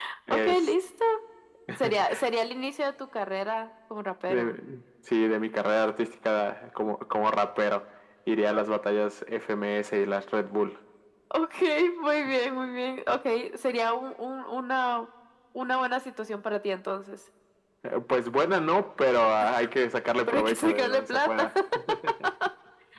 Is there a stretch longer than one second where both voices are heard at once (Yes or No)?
Yes